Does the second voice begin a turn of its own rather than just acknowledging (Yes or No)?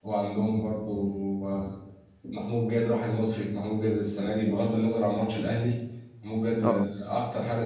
No